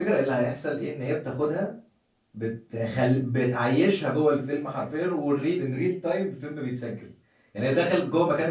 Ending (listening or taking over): listening